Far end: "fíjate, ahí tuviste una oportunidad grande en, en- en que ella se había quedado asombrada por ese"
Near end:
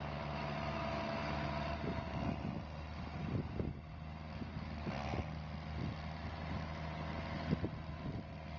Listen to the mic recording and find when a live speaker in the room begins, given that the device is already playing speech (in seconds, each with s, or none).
none